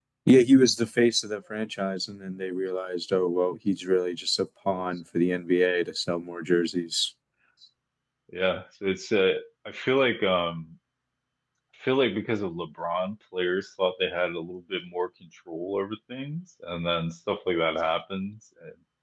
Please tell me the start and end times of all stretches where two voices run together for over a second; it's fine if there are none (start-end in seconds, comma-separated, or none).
none